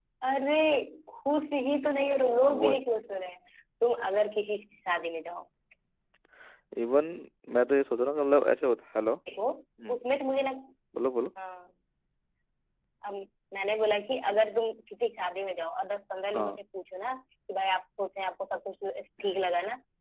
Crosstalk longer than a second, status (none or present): none